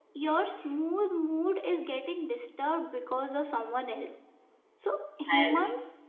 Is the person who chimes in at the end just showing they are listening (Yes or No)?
Yes